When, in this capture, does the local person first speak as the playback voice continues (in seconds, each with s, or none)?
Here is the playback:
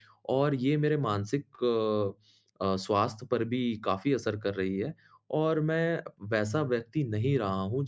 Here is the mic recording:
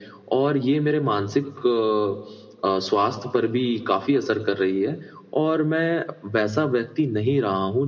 none